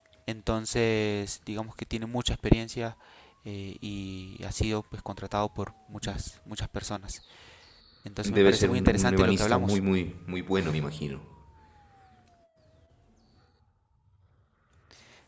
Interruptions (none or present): present